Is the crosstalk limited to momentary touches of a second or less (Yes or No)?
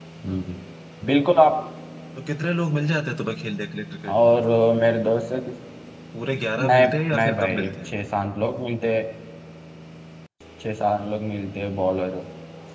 No